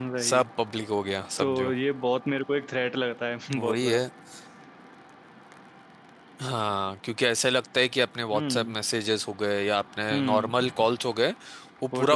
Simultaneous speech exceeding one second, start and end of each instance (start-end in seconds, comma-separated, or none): none